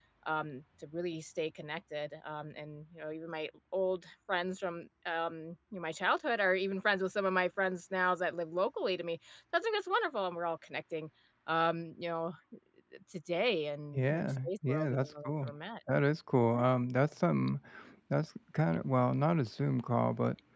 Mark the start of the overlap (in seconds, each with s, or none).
13.9 s